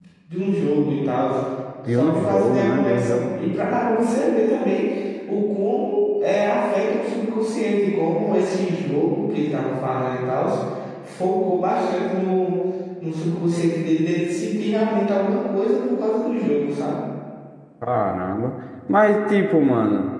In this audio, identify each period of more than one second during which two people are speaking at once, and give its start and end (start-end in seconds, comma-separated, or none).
2.0-3.2